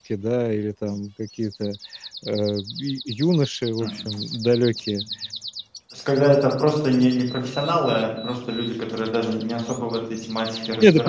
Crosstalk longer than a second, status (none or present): none